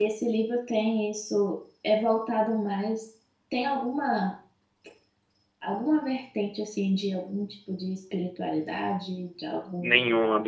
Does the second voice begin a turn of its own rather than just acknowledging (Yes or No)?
Yes